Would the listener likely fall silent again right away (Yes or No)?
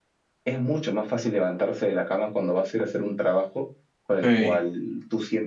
Yes